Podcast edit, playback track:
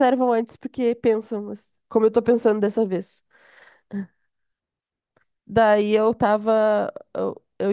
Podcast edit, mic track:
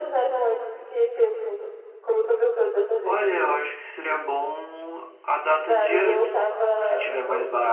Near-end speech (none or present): present